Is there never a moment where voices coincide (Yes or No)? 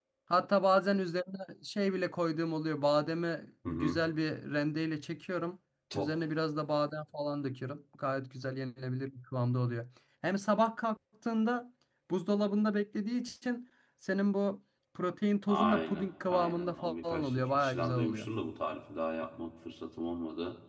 No